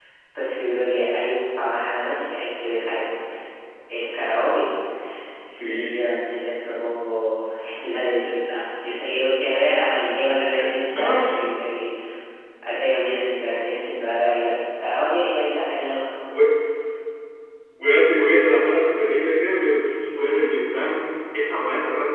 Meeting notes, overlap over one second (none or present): none